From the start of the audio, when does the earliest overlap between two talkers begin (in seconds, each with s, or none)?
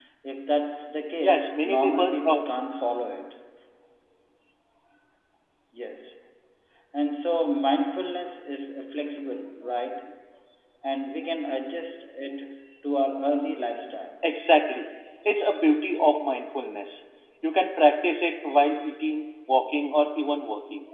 1.2 s